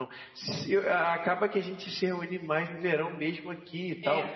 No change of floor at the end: Yes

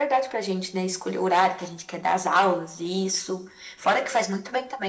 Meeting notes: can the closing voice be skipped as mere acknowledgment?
Yes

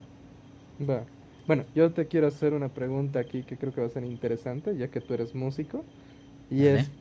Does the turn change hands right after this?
No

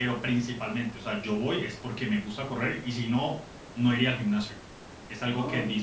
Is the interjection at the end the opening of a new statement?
No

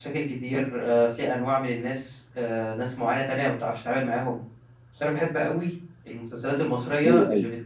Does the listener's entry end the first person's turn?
No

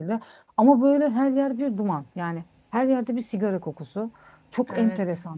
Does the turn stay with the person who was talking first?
Yes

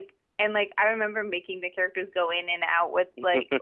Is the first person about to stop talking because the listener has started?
No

